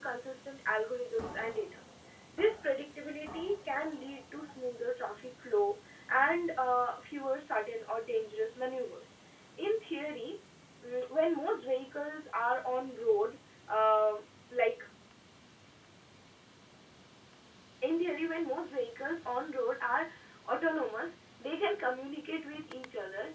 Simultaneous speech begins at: none

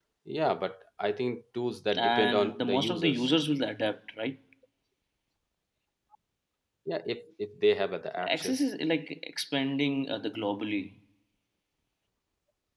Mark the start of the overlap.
2.0 s

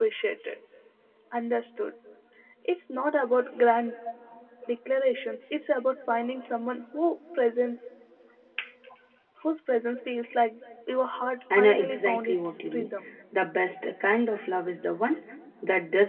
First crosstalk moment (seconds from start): 11.5 s

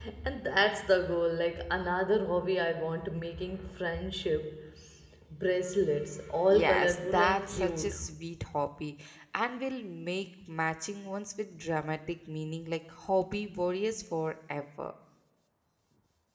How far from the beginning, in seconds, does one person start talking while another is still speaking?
6.5 s

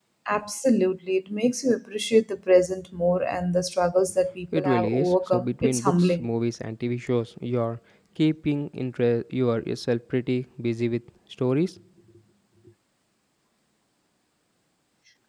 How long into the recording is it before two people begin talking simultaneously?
4.5 s

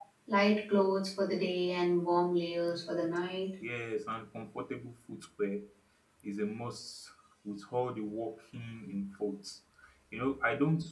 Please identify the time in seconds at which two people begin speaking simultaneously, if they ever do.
none

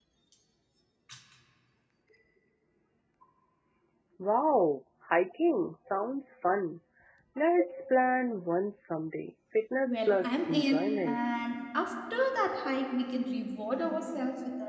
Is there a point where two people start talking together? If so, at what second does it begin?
9.8 s

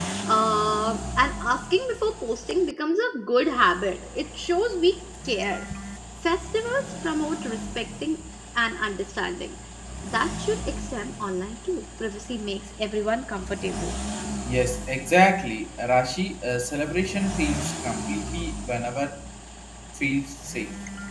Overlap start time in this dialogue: none

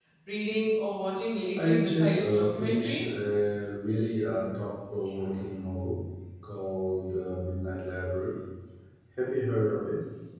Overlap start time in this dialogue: 1.6 s

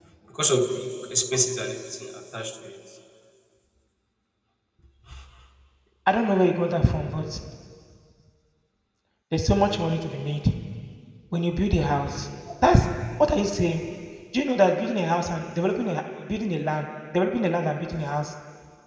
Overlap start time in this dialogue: none

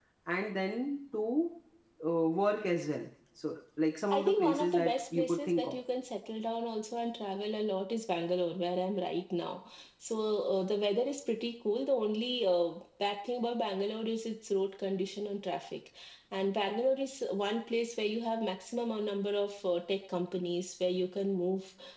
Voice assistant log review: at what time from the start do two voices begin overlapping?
4.1 s

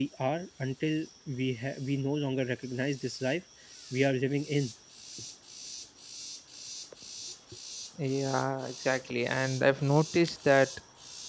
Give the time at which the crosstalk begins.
none

